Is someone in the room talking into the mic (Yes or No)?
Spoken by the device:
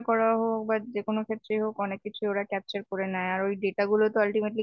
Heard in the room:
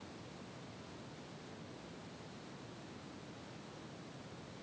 No